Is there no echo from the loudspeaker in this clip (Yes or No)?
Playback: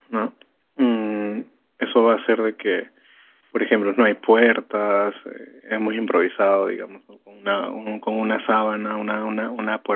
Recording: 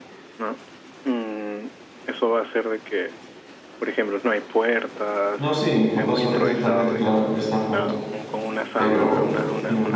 No